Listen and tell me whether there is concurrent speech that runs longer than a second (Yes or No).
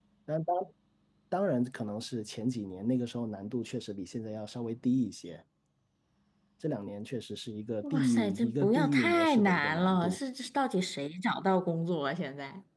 Yes